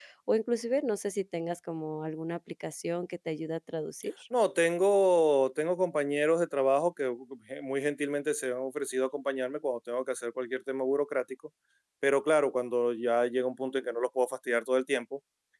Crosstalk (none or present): none